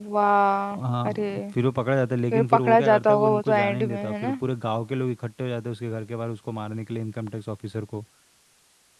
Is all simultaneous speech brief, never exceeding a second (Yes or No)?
No